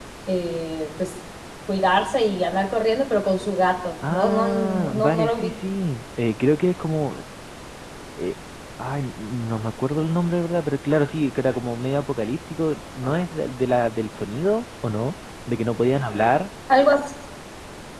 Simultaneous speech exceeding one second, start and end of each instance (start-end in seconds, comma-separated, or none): 4.1-5.5